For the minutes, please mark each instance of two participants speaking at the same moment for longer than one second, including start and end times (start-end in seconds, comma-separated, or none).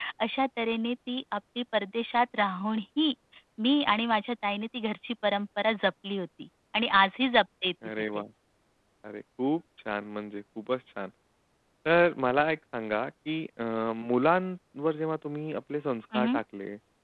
none